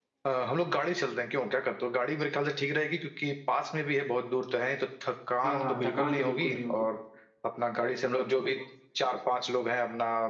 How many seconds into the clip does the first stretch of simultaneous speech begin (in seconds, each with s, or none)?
5.4 s